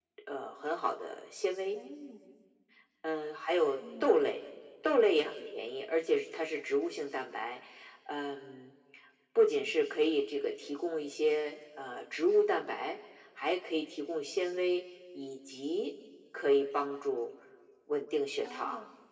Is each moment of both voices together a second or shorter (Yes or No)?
Yes